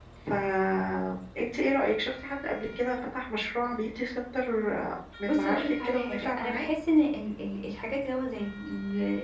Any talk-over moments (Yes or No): Yes